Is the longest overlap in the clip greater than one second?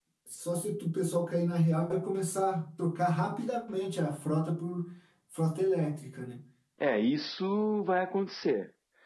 No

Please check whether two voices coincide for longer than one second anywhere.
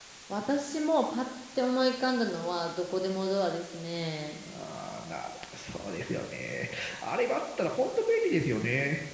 No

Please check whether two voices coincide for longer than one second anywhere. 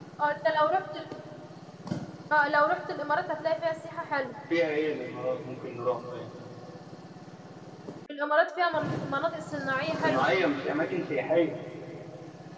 No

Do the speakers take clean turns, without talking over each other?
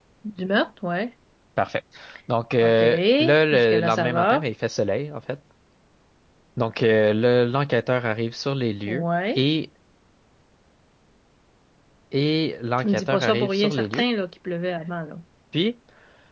No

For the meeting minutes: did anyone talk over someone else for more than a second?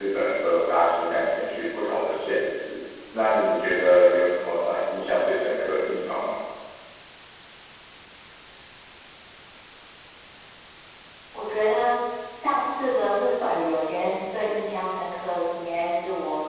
No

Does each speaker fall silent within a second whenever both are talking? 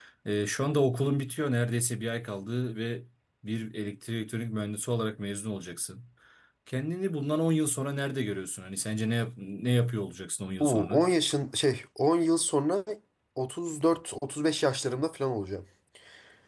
Yes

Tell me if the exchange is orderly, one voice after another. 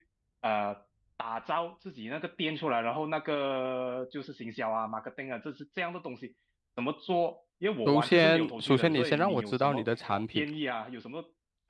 No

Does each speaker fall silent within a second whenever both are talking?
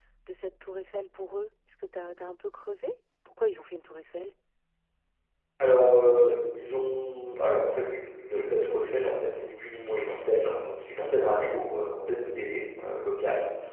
Yes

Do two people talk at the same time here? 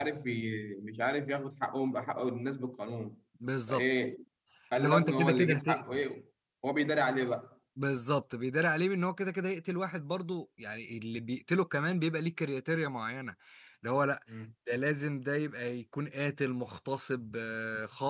Yes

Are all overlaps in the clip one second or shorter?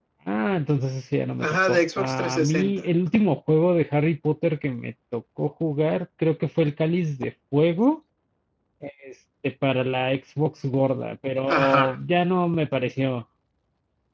No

